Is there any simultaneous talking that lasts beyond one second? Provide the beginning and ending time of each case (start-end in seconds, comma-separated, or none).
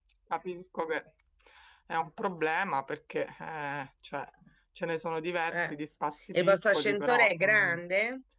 6.3-7.8